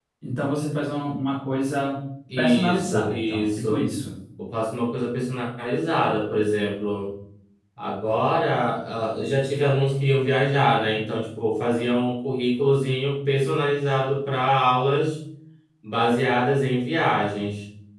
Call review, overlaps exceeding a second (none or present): present